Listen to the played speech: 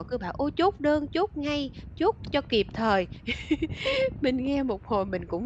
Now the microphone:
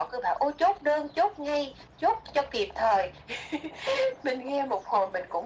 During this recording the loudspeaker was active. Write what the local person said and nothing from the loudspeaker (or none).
none